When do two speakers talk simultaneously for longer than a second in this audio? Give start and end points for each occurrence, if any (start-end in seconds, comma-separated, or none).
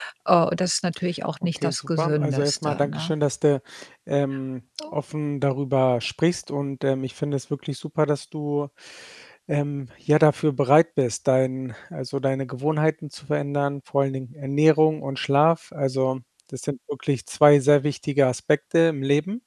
1.4-3.1